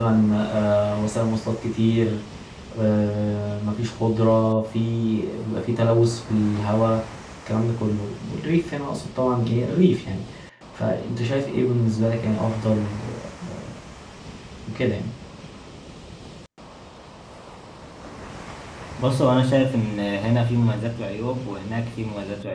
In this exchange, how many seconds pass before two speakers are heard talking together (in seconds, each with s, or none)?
none